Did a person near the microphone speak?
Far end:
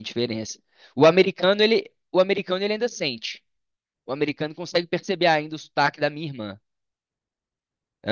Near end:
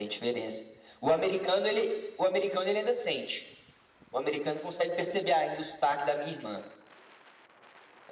No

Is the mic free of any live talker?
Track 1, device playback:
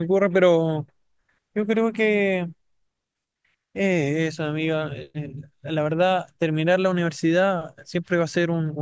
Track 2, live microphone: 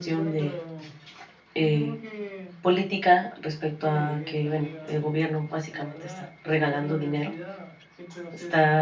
No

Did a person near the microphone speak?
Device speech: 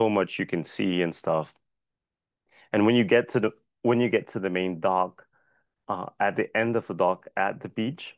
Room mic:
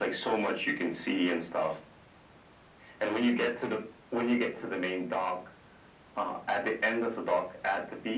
No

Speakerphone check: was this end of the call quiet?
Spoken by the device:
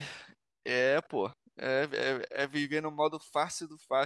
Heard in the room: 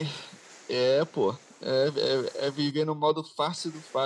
Yes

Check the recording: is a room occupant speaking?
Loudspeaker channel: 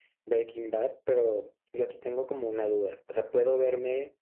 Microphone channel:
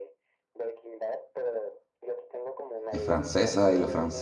Yes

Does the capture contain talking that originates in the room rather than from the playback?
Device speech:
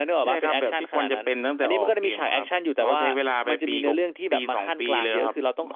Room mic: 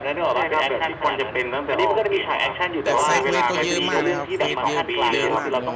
Yes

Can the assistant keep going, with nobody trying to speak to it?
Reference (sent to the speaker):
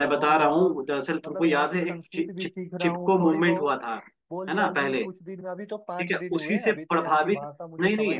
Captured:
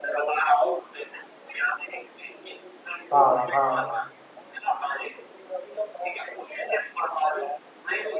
No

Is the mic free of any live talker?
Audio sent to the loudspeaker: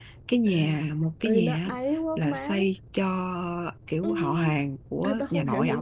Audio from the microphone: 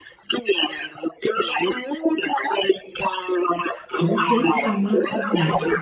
No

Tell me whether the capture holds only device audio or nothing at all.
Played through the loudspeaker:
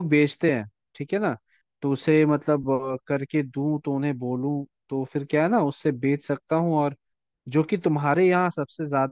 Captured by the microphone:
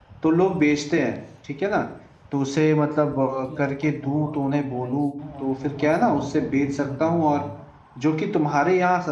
No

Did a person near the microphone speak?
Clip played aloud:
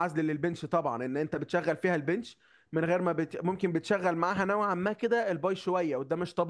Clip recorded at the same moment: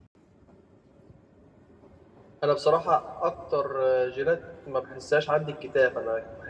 Yes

